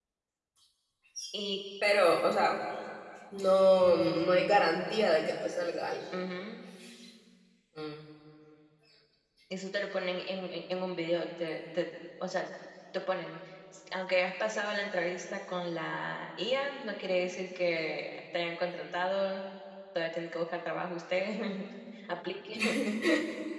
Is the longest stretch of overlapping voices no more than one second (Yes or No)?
Yes